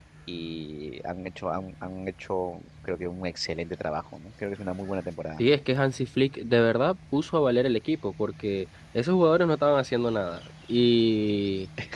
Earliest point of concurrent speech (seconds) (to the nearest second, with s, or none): none